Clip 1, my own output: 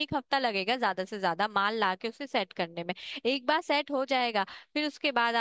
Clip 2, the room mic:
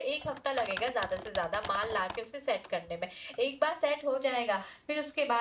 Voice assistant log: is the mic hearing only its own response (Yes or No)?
Yes